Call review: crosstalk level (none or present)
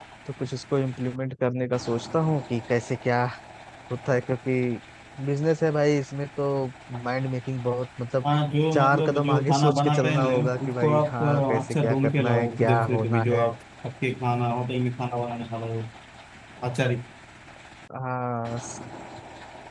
present